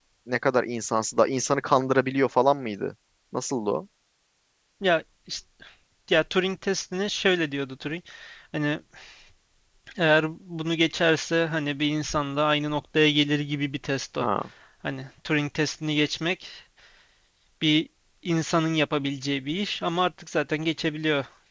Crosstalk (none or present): none